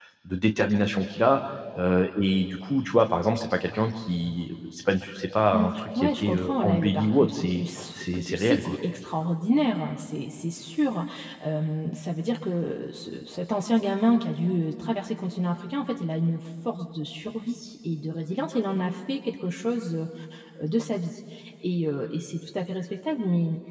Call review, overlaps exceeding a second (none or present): present